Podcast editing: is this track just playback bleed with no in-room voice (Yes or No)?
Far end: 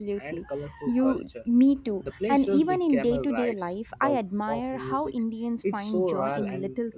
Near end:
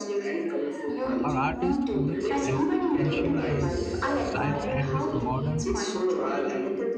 No